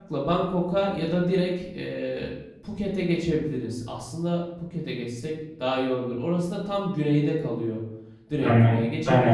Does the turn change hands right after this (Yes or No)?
Yes